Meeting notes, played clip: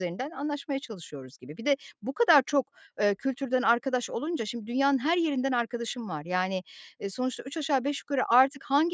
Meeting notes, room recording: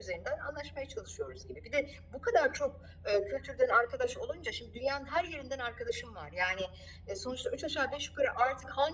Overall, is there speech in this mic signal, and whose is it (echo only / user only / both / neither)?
echo only